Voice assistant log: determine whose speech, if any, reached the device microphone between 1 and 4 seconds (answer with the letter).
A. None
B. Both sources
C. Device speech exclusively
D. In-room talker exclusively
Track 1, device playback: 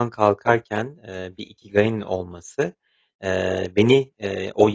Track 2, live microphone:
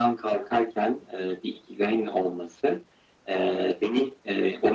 C